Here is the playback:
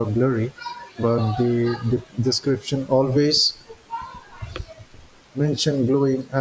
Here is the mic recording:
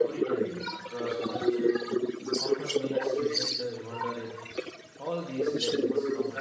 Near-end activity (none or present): present